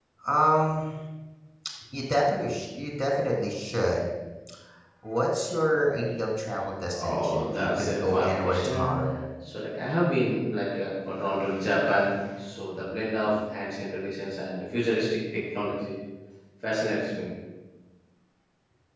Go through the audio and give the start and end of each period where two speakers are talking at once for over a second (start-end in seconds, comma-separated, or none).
7.0-8.9